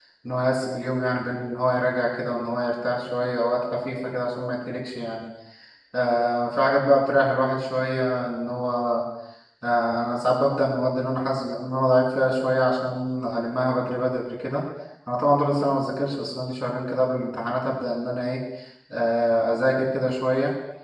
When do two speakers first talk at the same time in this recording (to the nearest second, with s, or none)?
none